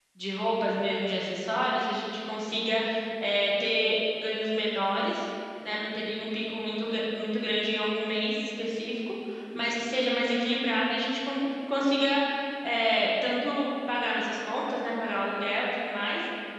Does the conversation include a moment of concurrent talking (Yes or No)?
No